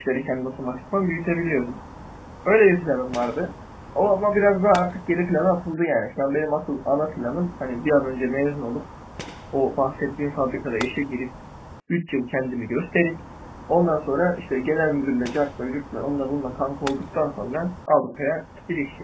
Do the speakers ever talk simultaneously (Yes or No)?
No